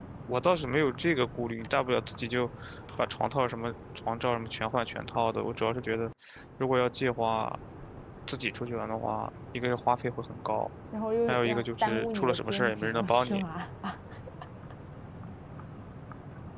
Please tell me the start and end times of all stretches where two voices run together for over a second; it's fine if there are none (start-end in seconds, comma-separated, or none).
11.3-13.4